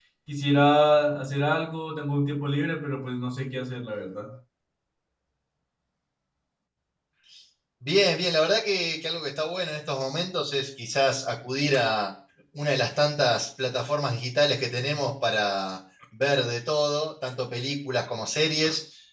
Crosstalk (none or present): none